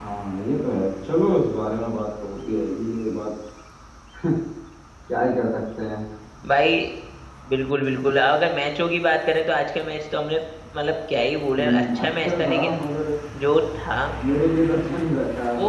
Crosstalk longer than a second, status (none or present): present